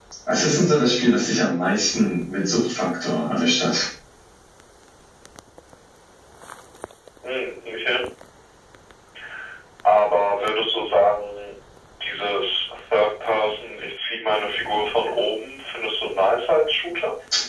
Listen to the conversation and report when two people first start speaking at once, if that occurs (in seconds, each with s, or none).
none